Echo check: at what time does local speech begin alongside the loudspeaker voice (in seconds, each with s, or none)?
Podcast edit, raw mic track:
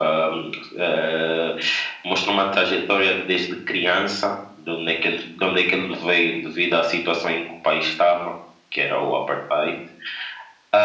none